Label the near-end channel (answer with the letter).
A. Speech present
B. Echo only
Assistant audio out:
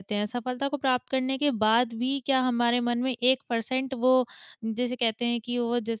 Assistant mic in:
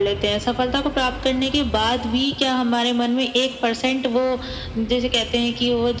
B